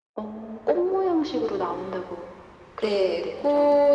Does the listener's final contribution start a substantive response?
Yes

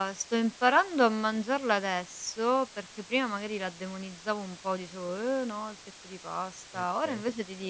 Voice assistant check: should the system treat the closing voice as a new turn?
No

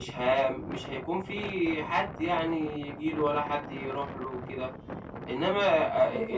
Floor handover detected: No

